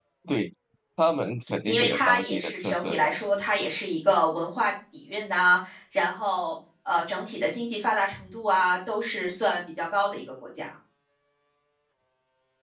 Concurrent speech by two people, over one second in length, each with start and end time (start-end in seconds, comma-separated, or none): 1.7-3.1